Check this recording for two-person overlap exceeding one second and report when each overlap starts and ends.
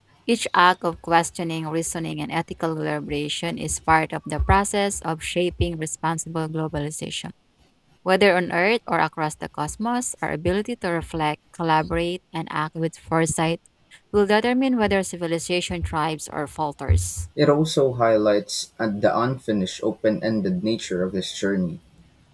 none

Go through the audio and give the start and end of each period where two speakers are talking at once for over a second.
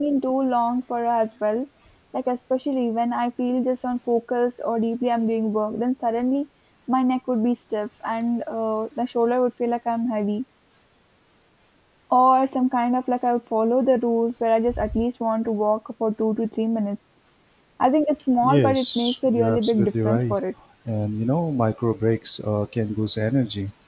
18.4-20.4

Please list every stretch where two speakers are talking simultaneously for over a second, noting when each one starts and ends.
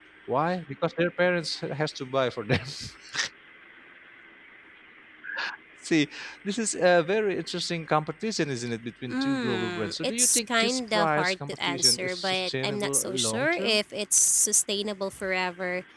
9.1-13.8

